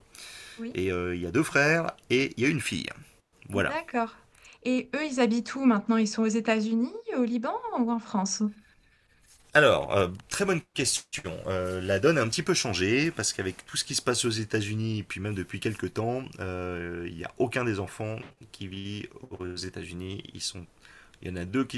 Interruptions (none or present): none